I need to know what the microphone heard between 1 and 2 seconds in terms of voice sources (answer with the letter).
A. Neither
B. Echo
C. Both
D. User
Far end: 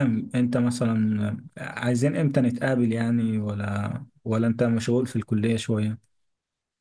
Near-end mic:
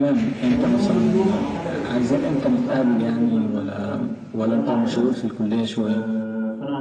C